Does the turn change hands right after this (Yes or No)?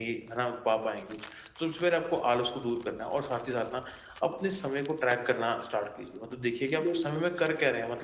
No